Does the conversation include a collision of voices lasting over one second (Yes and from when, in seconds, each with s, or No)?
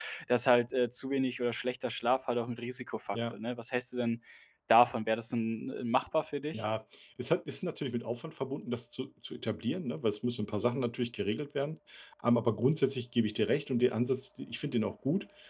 No